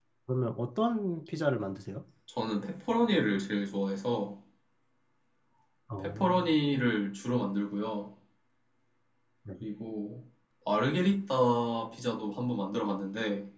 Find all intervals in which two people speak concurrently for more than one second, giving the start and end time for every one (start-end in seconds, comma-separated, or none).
none